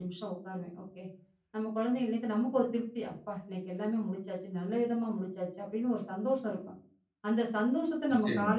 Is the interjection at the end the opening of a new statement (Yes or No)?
No